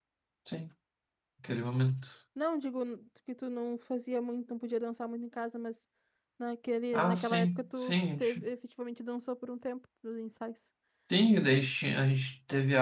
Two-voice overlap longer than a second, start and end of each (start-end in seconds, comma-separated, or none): 6.9-8.5